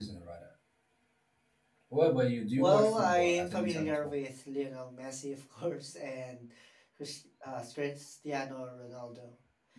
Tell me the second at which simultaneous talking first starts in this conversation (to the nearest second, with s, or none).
3 s